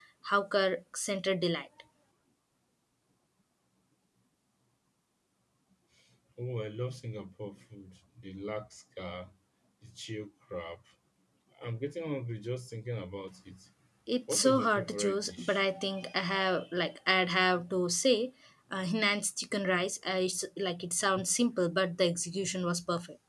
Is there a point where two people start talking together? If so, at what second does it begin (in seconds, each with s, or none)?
14.3 s